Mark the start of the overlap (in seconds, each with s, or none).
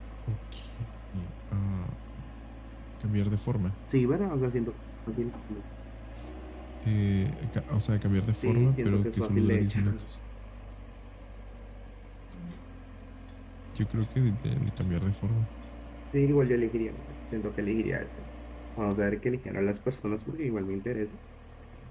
8.4 s